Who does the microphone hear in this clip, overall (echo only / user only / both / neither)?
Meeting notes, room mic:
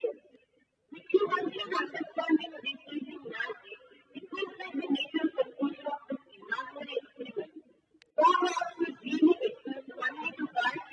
echo only